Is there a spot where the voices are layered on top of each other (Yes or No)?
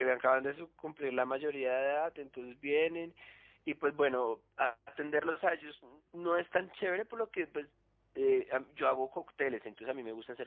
No